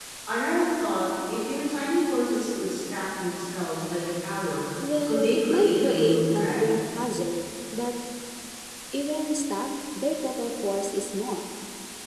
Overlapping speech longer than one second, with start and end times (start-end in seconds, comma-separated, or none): 5.1-6.6